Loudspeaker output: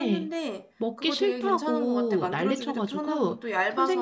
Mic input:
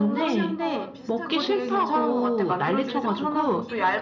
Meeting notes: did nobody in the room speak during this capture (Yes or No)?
No